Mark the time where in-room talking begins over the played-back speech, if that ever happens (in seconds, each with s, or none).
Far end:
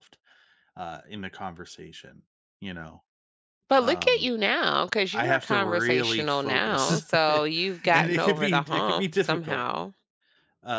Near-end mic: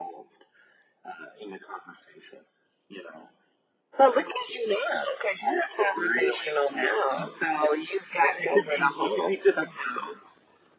none